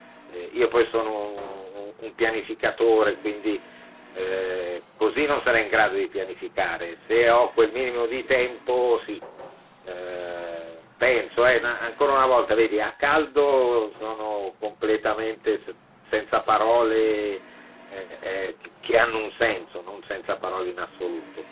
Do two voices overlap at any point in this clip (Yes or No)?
No